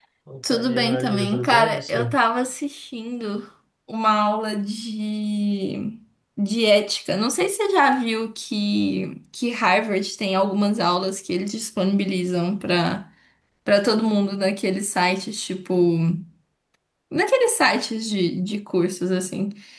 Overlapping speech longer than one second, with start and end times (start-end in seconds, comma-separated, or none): 0.5-2.1